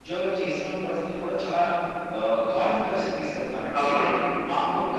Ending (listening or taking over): listening